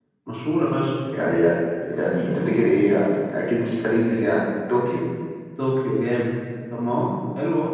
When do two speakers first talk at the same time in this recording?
none

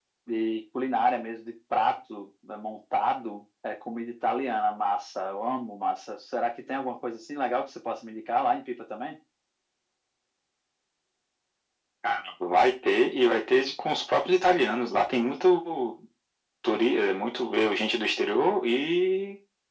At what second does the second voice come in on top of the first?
none

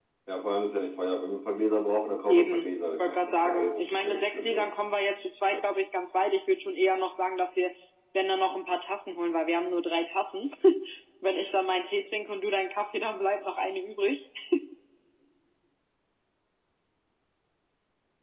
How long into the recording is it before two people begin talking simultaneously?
2 s

